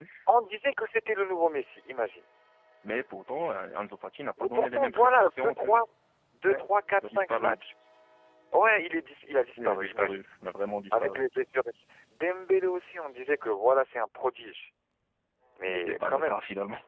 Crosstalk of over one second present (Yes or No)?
Yes